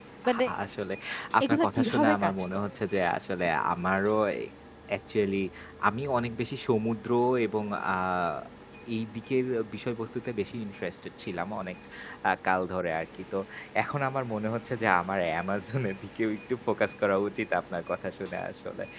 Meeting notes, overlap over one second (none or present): present